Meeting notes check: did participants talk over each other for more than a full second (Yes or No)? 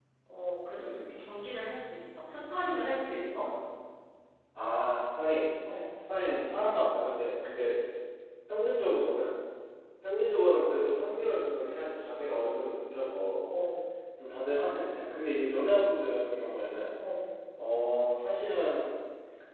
No